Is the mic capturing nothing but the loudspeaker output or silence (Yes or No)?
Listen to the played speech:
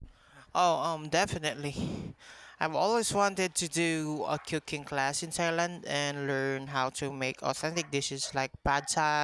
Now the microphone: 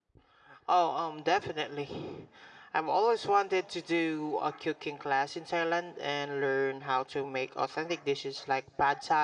Yes